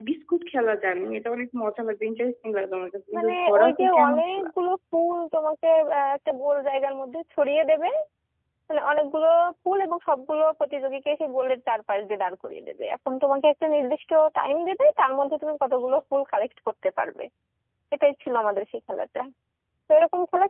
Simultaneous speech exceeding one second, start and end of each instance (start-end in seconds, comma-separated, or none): 3.2-4.5